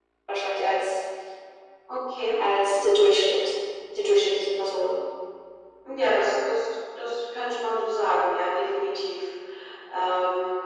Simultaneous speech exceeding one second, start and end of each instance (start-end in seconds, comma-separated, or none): none